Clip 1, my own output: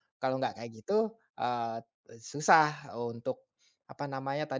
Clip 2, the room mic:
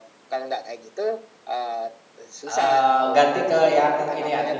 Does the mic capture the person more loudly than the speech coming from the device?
Yes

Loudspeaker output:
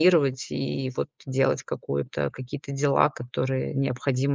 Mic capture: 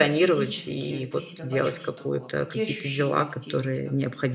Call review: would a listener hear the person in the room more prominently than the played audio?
No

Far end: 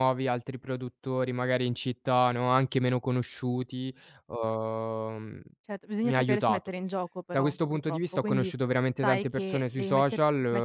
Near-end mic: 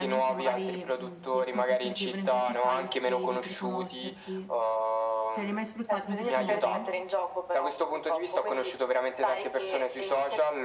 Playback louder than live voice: Yes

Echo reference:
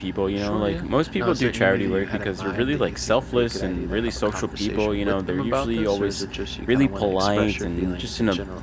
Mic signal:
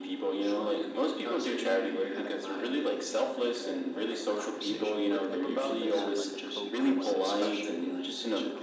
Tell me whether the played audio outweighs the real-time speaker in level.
Yes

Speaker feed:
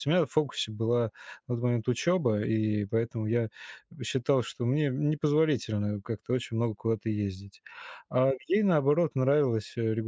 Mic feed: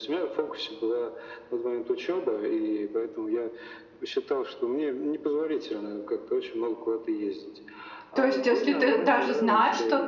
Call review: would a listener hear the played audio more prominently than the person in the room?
No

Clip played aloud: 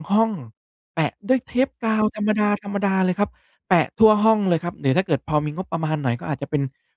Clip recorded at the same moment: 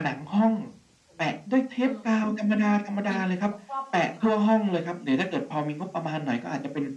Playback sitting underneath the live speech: No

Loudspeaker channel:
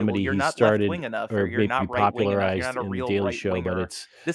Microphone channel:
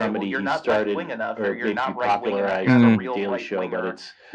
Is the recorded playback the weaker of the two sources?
Yes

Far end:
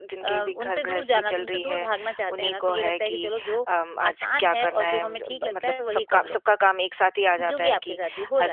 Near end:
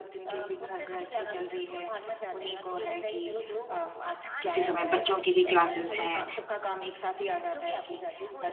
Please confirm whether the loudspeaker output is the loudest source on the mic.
No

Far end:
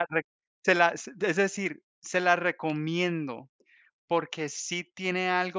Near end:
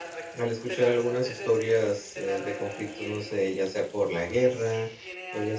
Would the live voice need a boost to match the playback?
No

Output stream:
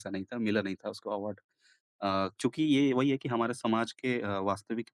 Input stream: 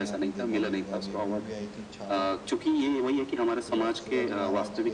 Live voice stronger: No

